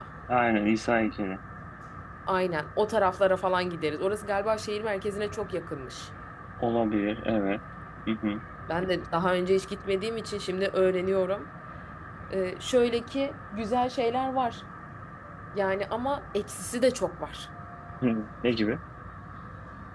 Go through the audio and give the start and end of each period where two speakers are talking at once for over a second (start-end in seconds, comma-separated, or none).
none